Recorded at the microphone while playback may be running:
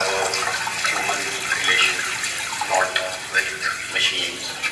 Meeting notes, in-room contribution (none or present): none